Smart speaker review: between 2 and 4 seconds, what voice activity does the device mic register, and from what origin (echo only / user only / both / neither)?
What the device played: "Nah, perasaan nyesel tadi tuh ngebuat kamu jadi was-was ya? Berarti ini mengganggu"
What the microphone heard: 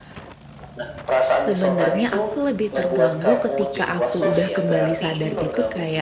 both